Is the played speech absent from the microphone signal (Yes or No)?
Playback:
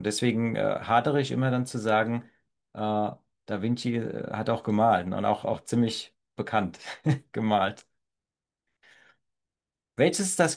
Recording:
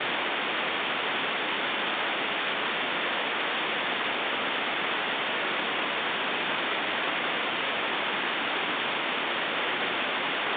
Yes